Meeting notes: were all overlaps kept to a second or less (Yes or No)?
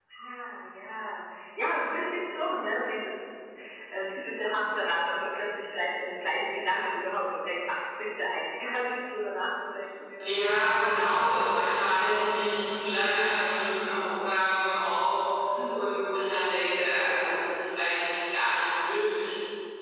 Yes